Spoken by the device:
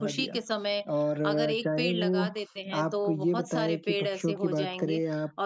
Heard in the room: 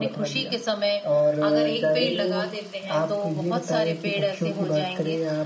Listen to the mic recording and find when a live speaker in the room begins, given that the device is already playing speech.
none

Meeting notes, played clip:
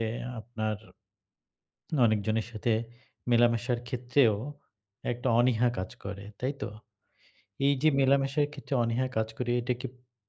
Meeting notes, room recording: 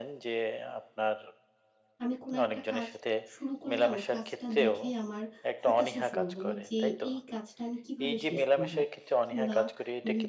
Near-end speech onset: 2.0 s

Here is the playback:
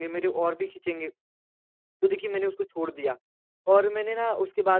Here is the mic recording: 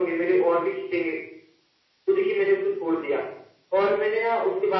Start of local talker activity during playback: none

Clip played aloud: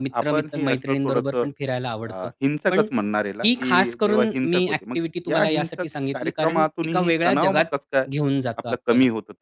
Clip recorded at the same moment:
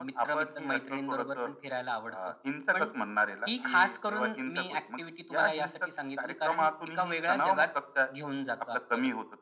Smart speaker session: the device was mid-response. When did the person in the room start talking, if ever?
none

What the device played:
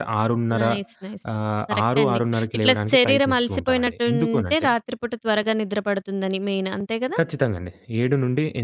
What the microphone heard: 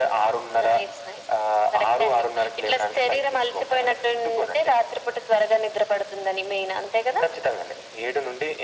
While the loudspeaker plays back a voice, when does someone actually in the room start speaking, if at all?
none

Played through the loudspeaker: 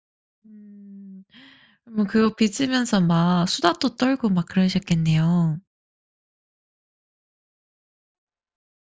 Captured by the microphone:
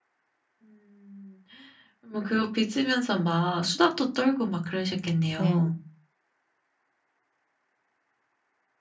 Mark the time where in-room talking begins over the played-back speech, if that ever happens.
5.4 s

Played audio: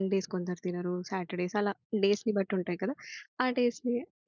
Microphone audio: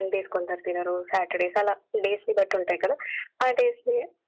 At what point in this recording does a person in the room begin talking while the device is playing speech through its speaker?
none

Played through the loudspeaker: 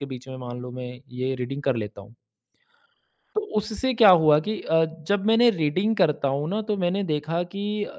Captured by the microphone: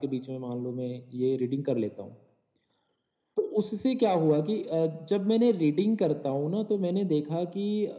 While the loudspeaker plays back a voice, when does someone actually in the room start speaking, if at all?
none

